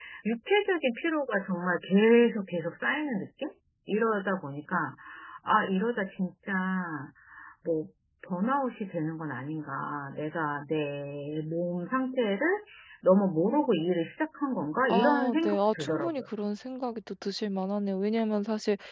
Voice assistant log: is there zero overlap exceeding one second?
No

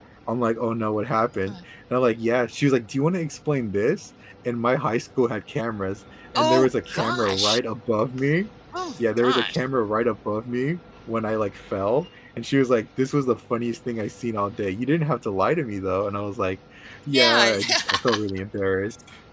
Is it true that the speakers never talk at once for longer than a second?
No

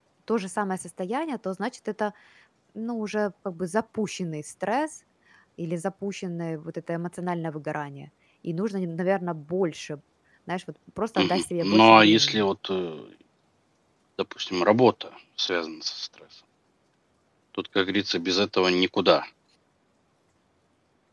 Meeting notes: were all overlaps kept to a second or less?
No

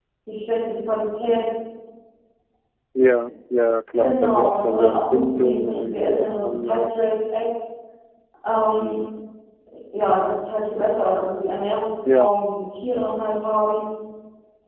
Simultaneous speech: Yes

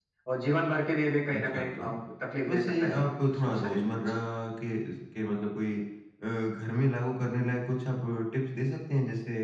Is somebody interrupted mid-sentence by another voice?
Yes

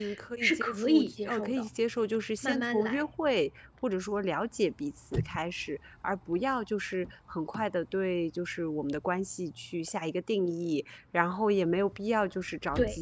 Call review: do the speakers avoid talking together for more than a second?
No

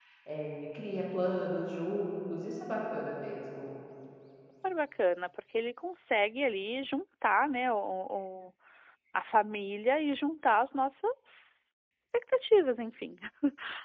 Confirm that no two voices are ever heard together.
Yes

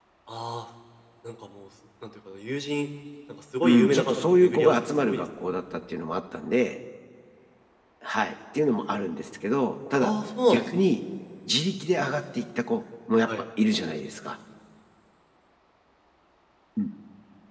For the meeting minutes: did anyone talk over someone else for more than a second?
Yes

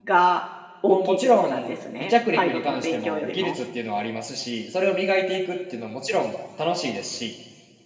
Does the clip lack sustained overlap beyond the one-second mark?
No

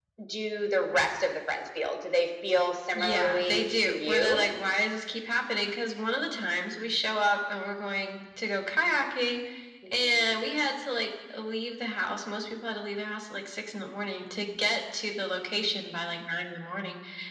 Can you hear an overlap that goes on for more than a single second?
Yes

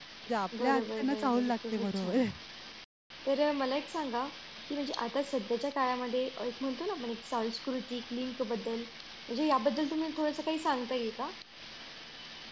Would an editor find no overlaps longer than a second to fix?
No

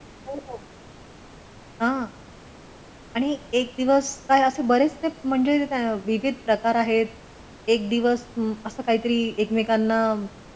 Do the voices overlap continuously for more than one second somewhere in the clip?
No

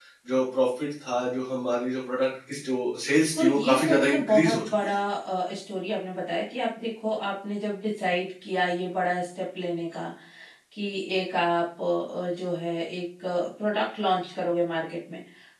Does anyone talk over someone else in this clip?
Yes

